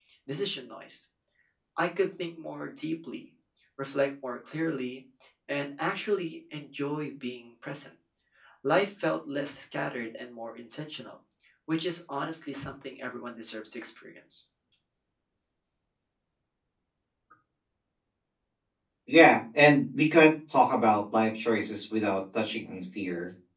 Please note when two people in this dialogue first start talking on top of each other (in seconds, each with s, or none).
none